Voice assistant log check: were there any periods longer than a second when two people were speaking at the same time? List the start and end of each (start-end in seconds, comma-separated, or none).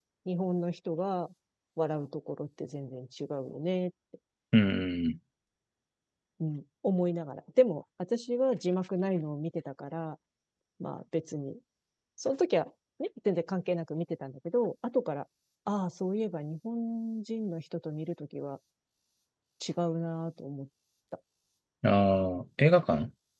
none